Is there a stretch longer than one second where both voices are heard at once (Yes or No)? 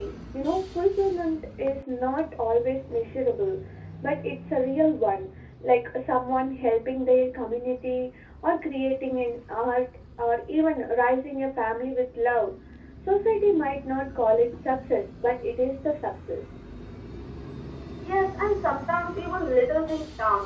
No